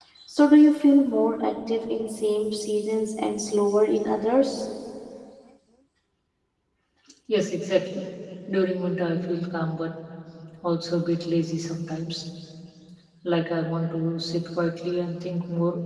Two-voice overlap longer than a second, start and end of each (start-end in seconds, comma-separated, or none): none